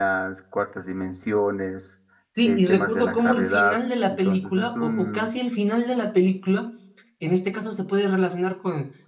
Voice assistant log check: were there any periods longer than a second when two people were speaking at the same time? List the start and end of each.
2.4-5.3

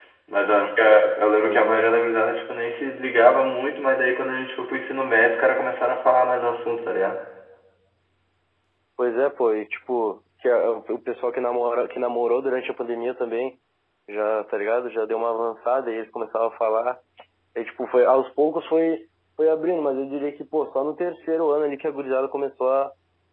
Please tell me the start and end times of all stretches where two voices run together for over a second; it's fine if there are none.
none

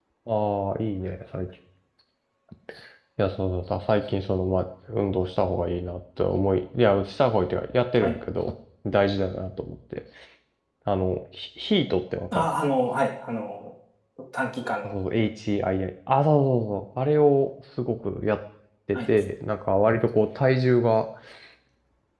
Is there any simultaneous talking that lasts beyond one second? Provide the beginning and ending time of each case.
none

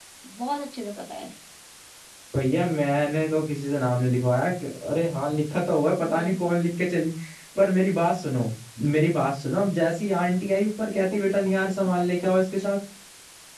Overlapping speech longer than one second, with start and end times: 10.9-12.6

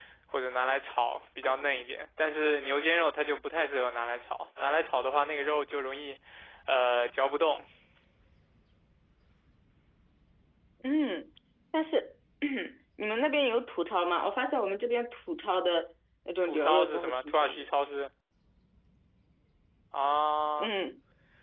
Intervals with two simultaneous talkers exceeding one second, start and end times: 16.4-17.7

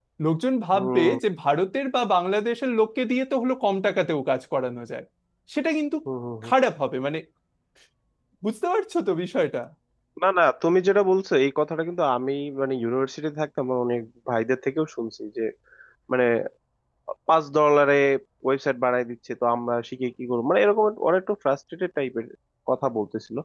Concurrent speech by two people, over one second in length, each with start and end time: none

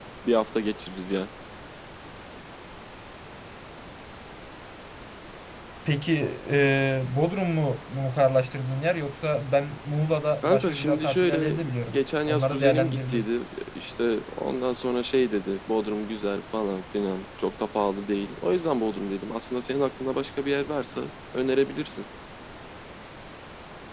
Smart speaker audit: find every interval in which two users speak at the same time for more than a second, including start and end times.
10.4-13.3

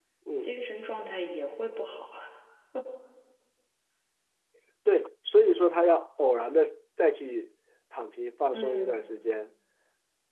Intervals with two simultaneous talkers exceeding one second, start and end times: none

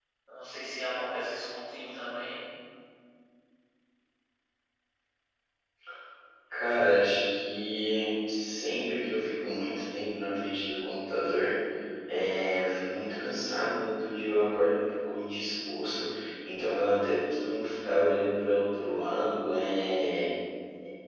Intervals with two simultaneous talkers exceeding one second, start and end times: none

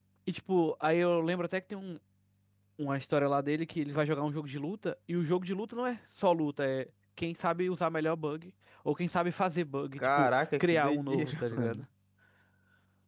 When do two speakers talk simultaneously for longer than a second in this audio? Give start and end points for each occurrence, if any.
10.0-11.8

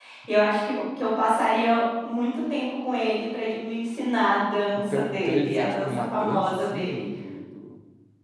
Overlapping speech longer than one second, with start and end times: 4.8-7.0

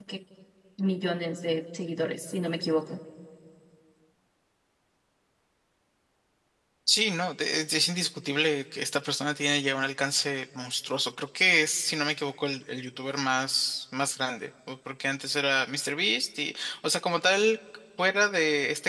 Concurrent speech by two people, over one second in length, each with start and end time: none

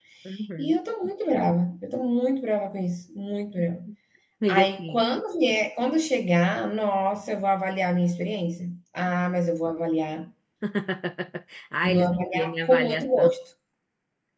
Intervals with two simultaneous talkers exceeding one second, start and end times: 11.8-13.3

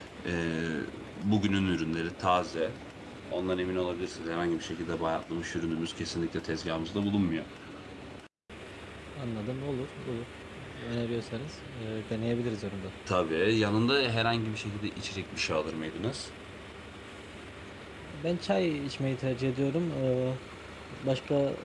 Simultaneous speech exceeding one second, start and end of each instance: none

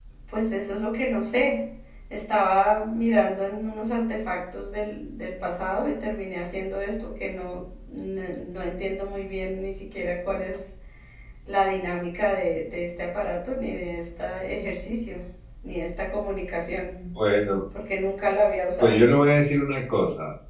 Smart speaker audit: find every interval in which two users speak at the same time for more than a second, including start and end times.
none

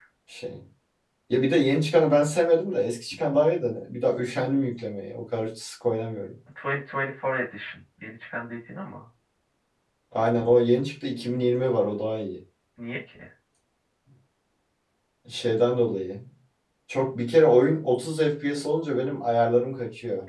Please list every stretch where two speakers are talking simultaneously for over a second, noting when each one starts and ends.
none

